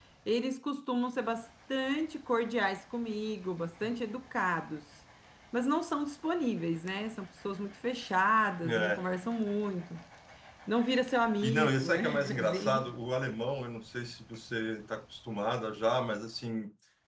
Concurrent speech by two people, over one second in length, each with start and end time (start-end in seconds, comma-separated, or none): 11.4-12.9